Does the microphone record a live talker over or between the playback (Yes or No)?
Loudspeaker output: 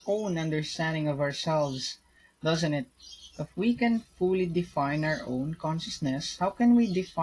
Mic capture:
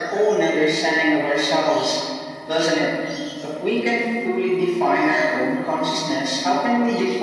No